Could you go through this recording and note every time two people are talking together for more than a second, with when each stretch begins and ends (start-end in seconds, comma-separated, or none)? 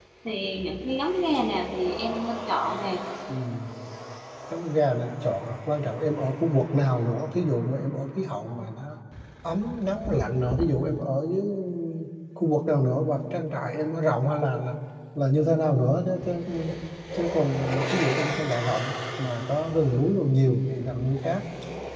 none